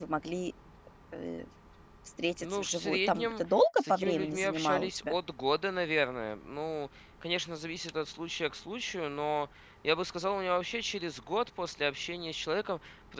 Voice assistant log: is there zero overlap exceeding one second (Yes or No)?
No